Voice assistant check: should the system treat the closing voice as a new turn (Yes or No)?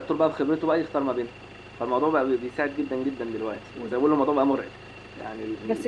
Yes